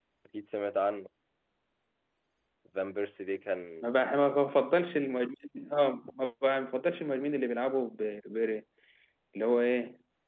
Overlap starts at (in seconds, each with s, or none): none